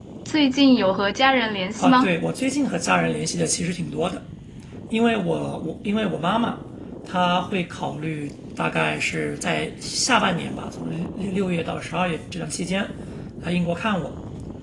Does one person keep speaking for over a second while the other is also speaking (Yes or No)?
No